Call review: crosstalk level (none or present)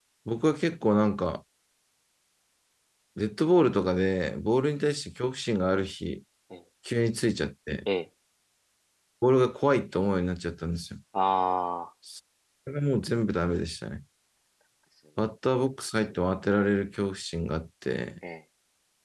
none